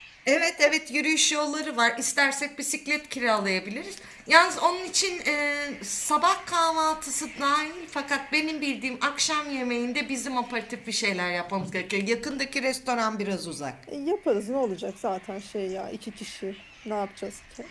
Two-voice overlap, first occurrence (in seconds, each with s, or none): none